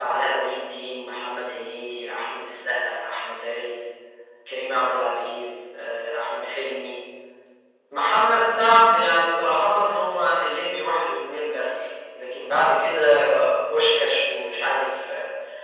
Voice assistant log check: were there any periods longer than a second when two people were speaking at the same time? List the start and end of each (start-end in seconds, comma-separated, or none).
none